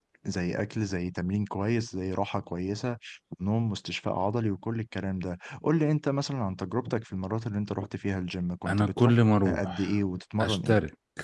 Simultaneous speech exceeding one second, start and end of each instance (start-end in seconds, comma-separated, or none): 8.7-9.9